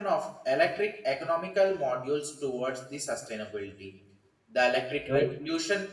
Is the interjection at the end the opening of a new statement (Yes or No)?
No